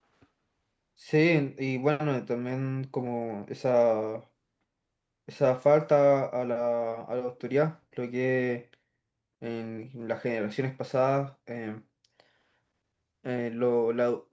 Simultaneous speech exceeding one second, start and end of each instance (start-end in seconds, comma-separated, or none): none